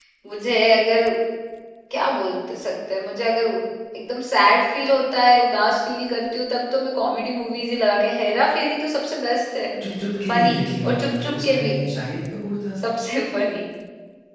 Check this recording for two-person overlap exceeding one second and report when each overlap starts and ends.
10.3-11.8

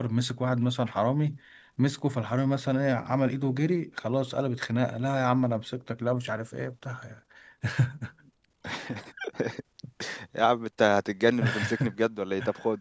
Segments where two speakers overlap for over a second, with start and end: none

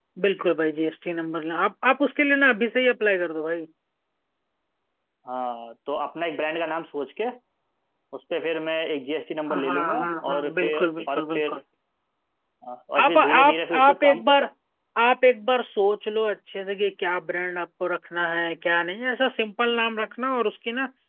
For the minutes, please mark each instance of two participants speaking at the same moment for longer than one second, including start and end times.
9.5-11.5, 13.0-14.2

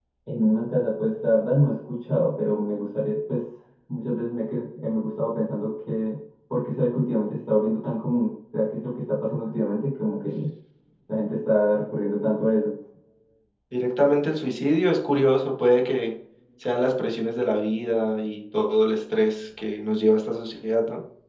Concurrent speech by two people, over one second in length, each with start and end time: none

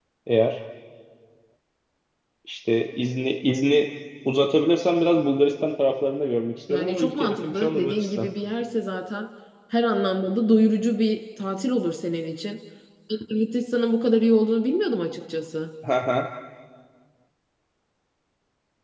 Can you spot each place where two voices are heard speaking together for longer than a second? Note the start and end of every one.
6.7-8.3

